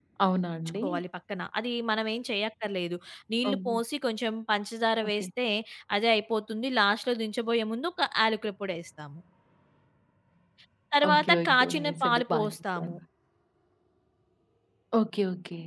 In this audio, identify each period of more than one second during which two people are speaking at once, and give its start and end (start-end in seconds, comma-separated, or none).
11.1-12.9